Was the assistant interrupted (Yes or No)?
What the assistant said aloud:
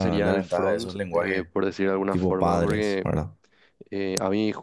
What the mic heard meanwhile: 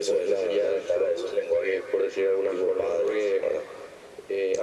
No